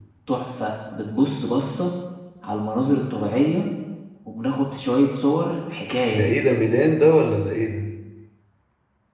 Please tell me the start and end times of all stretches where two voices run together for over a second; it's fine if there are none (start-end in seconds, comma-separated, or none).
none